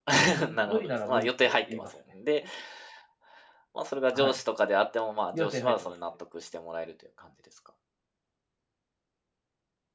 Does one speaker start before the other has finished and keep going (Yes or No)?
Yes